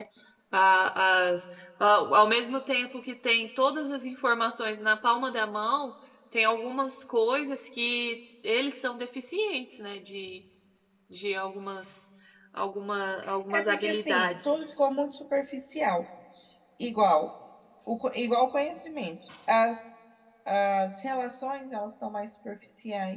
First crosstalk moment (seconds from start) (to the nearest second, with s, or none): 13 s